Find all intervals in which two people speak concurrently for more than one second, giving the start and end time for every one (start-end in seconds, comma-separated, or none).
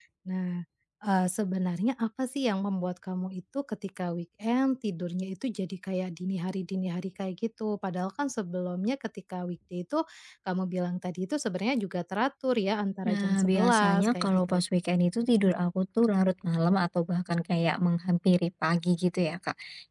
13.1-14.6